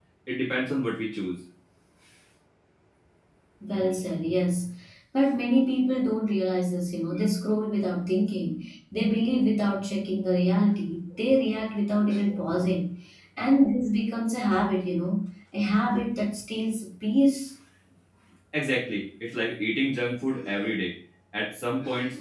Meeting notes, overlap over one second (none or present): none